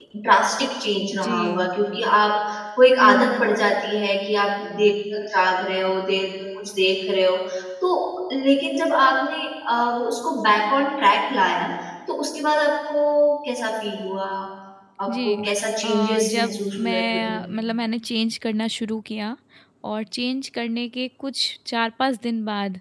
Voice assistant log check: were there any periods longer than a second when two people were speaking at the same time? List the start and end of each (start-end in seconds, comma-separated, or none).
15.8-17.5